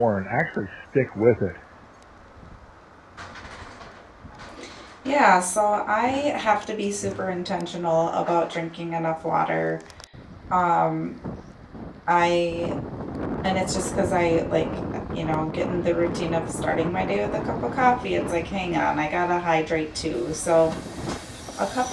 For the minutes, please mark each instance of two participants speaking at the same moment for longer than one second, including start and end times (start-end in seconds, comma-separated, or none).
none